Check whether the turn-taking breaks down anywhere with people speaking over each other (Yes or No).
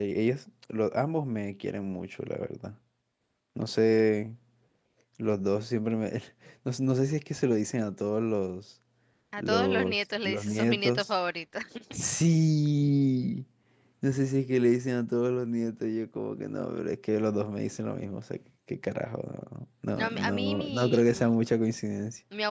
Yes